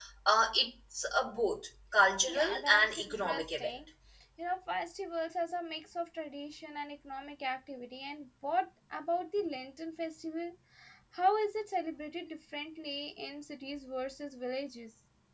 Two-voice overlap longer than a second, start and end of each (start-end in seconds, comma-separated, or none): 2.3-3.7